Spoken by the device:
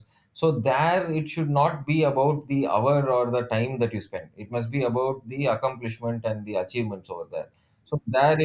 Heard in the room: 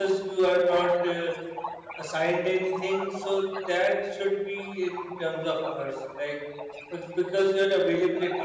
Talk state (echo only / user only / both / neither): both